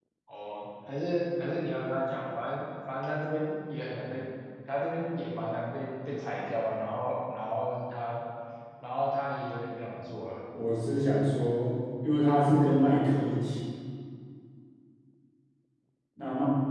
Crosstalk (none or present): none